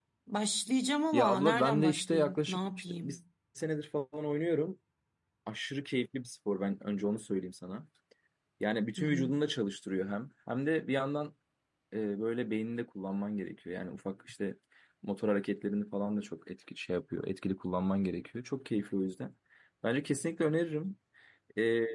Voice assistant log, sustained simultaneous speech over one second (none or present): present